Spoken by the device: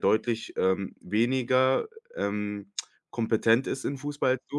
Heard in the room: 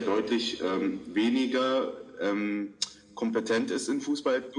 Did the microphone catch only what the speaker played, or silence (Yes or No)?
Yes